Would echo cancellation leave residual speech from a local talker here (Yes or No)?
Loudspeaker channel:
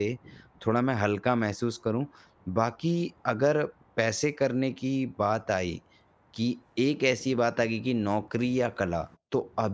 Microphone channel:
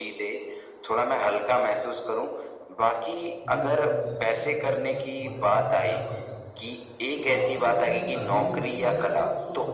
Yes